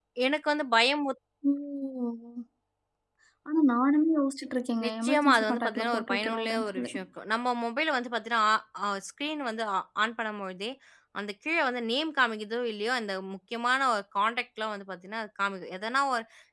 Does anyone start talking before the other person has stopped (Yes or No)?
Yes